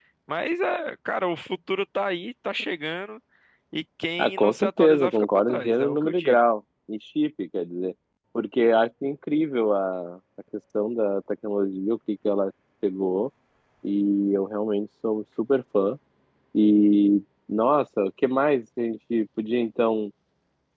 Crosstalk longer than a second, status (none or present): present